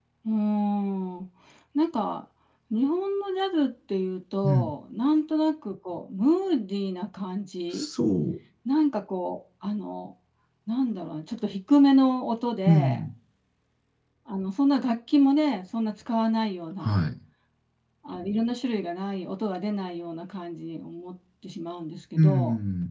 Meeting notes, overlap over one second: none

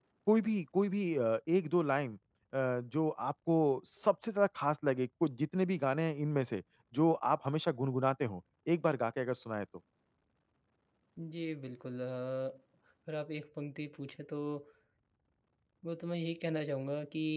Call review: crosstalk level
none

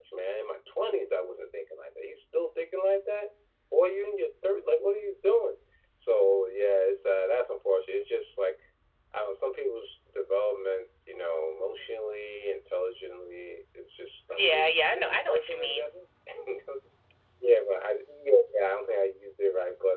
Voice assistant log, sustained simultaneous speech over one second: present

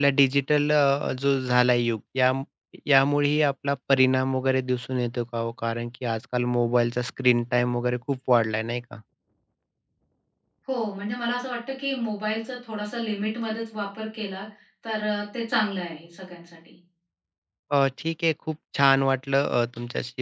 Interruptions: none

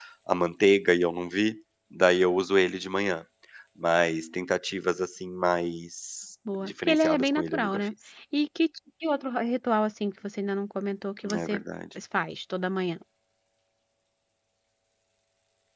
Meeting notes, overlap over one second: present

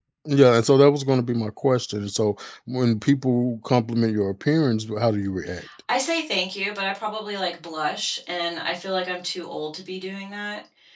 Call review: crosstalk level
none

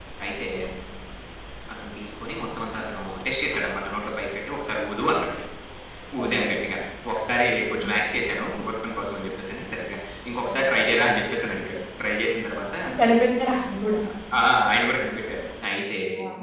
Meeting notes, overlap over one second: none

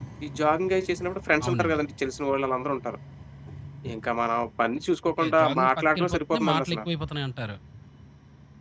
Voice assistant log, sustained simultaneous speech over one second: present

